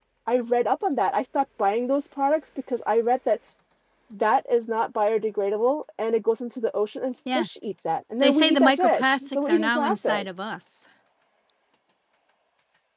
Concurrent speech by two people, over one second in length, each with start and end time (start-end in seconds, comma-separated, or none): 8.2-10.2